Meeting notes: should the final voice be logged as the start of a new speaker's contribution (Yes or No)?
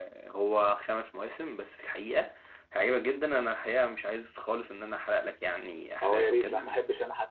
Yes